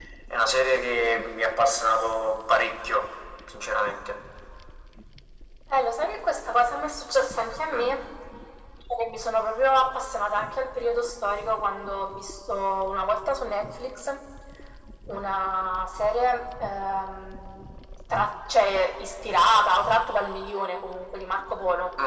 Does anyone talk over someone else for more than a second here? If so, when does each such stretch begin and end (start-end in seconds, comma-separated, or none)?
none